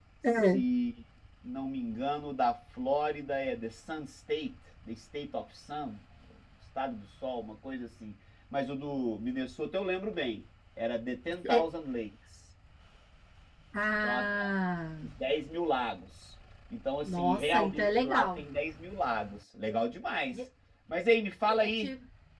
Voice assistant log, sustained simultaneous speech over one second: present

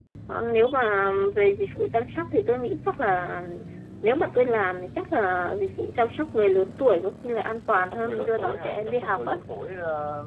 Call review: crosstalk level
present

